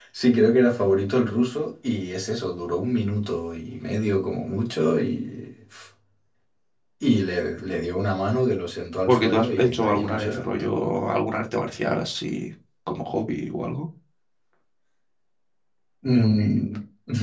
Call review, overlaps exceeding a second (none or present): present